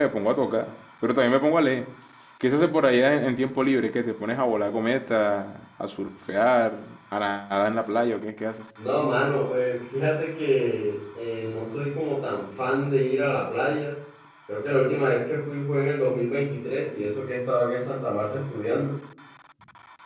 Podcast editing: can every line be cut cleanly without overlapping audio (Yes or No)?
Yes